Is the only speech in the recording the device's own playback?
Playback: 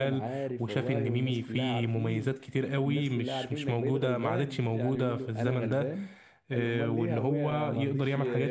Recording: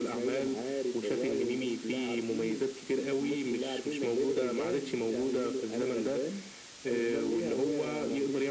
Yes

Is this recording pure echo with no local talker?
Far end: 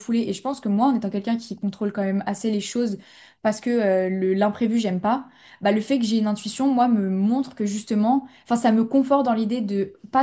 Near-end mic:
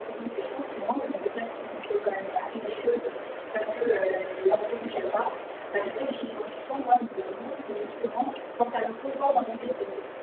Yes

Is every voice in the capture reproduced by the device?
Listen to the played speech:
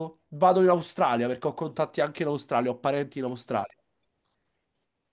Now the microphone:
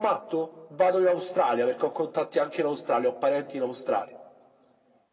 Yes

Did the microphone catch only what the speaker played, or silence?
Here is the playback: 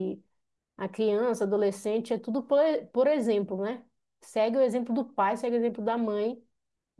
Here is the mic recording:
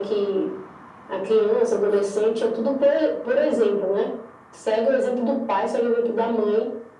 Yes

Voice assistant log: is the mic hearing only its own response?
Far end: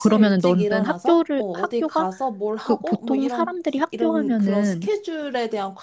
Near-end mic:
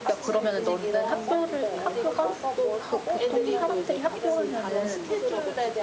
No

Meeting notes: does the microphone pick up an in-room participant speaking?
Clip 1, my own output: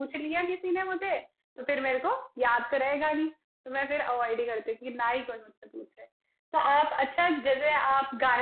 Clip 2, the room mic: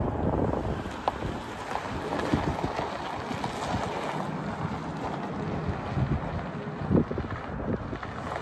No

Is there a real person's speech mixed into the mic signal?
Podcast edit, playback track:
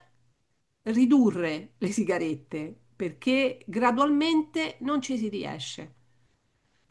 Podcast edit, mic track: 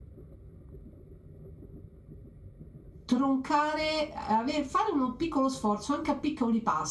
Yes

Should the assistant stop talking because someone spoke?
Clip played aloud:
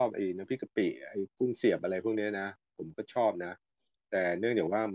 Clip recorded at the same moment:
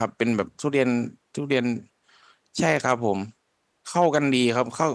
Yes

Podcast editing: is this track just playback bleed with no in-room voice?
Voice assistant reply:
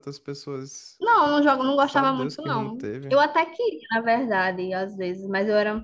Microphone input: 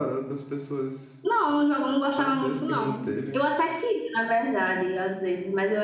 Yes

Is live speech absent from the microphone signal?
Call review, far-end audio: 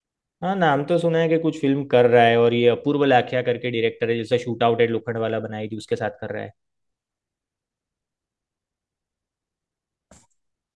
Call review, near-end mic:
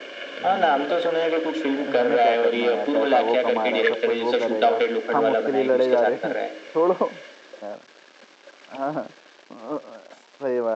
No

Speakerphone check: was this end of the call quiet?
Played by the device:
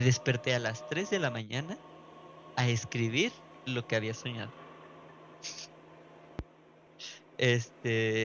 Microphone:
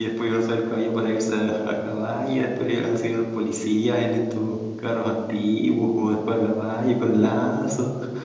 No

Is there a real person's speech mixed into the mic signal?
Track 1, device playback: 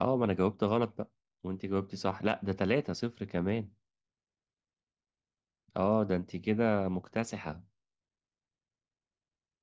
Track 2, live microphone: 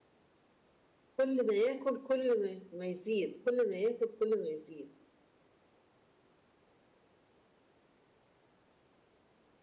Yes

